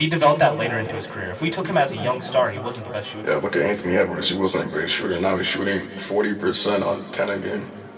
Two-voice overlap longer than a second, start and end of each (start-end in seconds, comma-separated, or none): none